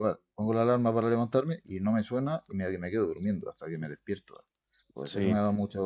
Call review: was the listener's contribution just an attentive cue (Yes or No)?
Yes